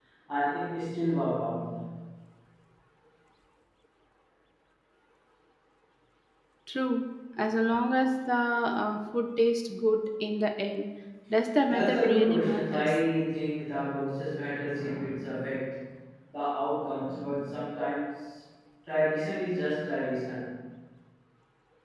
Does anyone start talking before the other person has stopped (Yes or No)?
Yes